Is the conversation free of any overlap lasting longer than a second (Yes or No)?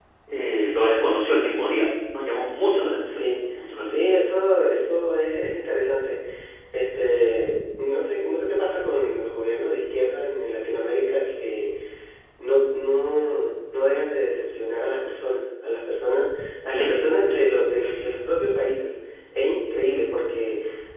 Yes